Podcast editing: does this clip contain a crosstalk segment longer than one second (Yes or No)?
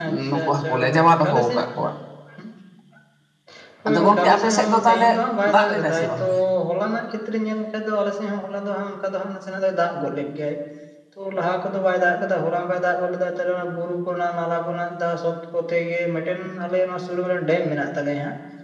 Yes